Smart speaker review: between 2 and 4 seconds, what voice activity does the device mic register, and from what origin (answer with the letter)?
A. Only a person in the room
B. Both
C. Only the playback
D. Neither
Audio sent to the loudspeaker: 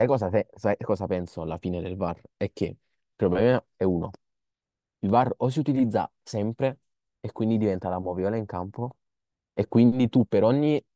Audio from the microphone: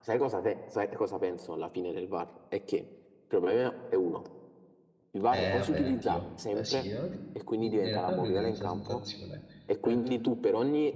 C